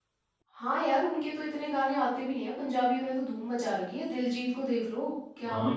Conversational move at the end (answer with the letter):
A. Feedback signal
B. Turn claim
B